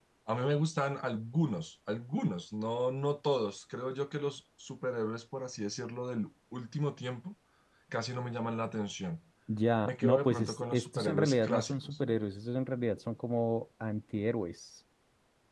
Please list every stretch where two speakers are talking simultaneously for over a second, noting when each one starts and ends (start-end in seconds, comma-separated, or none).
9.8-12.0